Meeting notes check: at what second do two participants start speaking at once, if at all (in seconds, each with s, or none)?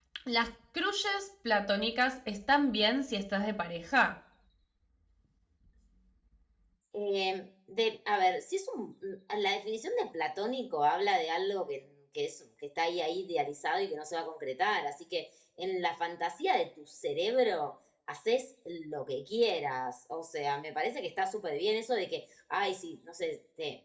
none